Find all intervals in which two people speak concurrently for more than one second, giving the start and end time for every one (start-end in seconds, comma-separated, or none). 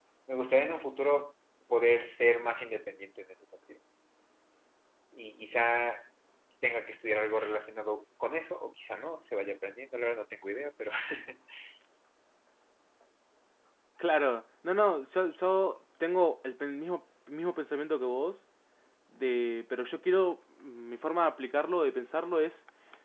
none